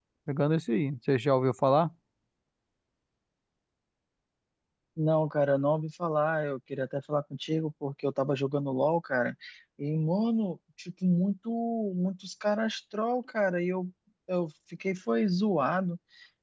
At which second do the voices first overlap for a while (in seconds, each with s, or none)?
none